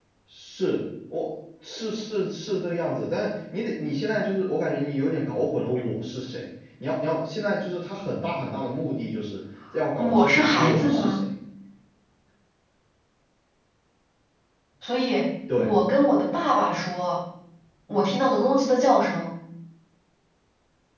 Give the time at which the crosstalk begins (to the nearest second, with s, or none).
10 s